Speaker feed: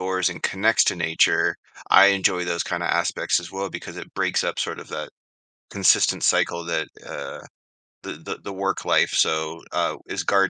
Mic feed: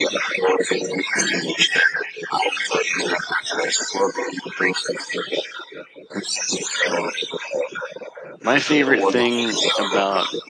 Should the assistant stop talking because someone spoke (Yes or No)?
Yes